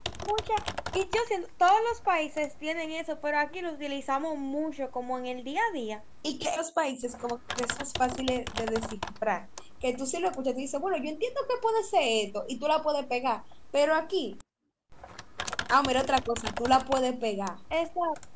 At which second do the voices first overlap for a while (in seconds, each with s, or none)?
none